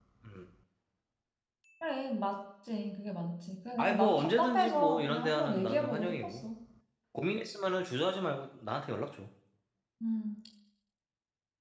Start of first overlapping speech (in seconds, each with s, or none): 3.8 s